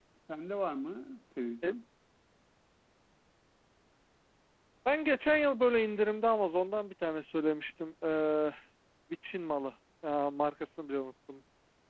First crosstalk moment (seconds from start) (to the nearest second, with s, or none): none